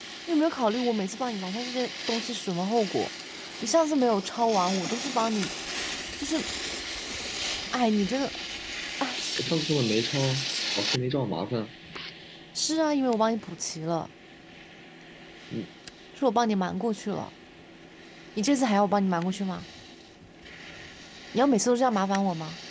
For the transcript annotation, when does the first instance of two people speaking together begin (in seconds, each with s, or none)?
none